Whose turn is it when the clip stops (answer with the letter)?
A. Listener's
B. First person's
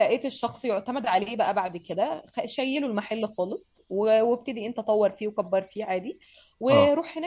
B